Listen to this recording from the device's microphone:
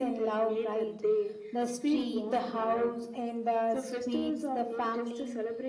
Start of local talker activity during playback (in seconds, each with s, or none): none